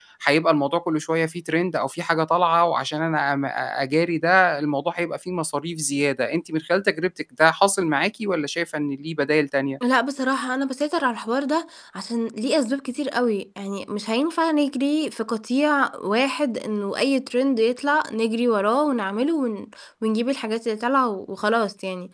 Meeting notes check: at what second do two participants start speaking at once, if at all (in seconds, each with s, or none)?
none